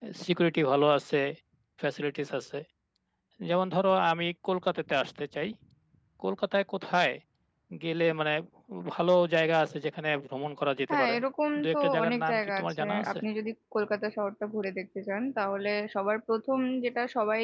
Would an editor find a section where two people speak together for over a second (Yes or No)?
Yes